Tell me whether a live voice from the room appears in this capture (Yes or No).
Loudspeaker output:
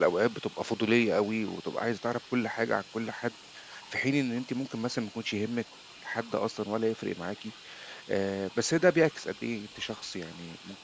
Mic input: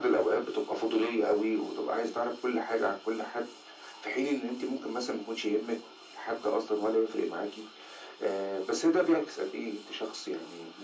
No